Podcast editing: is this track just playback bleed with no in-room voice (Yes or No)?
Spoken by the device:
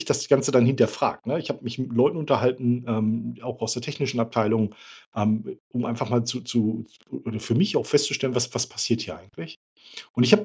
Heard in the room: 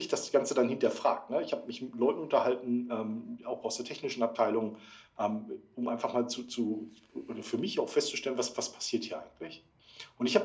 Yes